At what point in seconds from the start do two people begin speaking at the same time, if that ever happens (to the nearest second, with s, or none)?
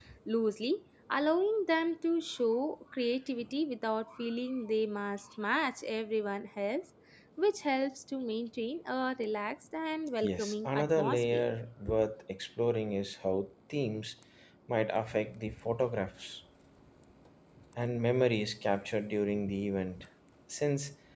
10 s